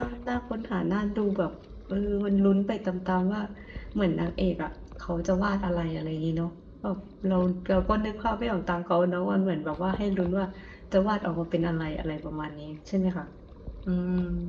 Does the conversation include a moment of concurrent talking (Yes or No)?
No